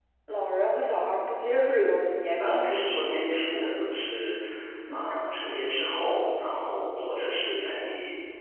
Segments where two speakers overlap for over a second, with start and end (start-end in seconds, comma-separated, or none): 2.4-3.7